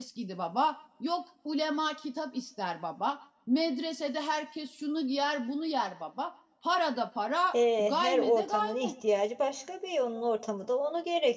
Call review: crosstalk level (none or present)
present